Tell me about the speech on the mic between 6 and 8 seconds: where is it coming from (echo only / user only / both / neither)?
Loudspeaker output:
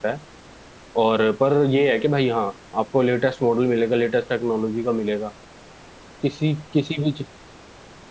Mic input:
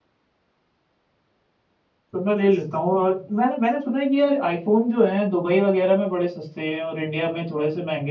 user only